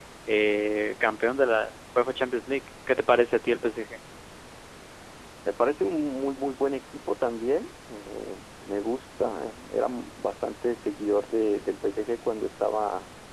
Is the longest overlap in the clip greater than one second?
No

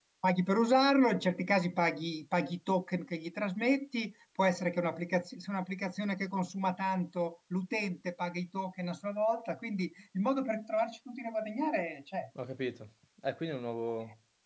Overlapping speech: No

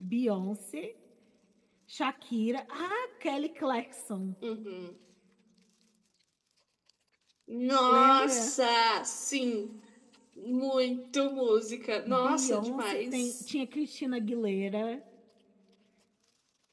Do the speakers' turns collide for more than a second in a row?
Yes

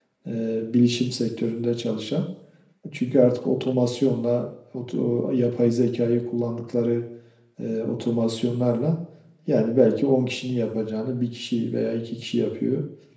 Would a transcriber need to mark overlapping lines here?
No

